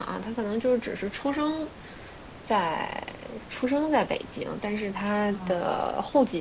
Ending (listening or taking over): listening